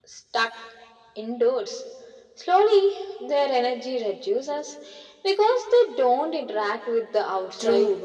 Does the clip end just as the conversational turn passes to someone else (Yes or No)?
Yes